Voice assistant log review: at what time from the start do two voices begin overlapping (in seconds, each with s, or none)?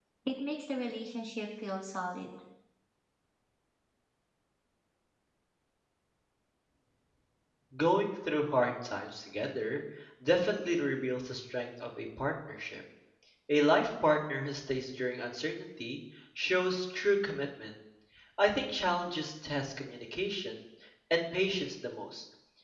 none